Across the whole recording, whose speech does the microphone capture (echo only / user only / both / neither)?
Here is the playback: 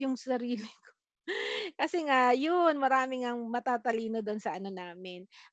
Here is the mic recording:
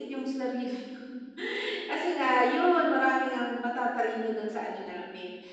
echo only